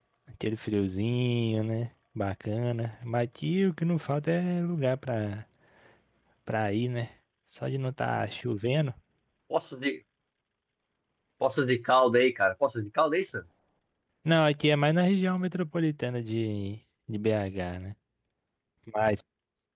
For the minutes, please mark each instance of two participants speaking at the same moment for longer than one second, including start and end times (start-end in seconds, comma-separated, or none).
none